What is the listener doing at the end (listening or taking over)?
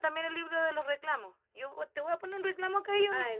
taking over